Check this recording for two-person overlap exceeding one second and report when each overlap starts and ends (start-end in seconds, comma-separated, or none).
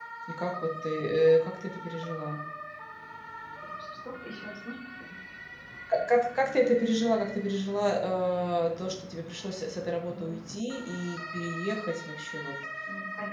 none